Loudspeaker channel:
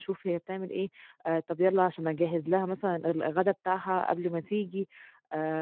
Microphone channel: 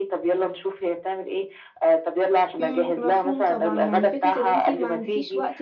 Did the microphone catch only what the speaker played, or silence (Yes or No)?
No